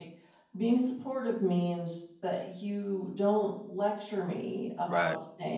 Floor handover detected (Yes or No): No